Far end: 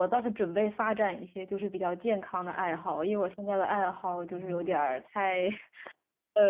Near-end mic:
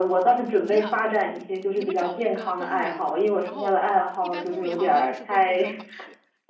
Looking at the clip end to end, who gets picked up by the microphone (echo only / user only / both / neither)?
both